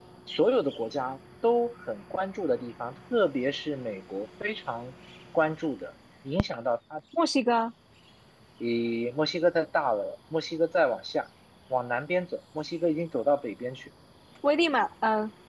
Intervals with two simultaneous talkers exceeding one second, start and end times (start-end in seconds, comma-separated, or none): none